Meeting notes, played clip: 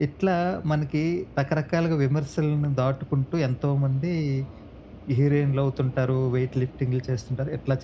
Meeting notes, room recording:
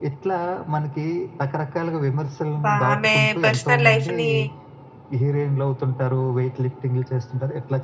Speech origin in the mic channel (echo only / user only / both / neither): both